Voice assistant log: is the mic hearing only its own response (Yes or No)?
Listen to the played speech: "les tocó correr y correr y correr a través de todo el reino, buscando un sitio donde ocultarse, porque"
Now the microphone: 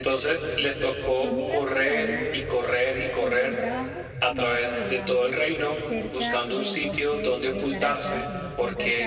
No